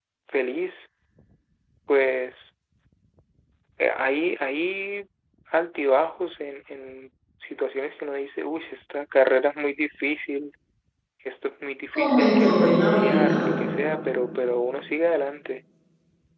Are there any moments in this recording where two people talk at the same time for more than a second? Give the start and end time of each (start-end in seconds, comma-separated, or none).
11.9-13.5